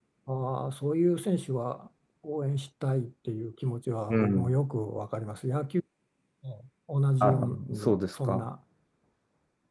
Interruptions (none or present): present